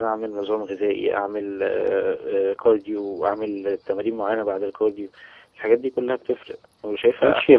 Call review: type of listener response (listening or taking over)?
taking over